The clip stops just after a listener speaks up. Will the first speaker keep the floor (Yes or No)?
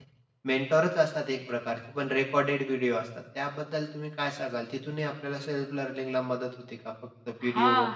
No